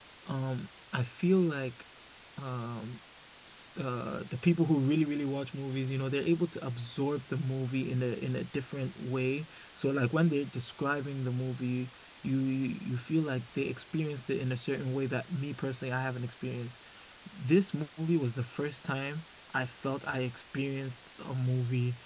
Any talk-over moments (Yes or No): No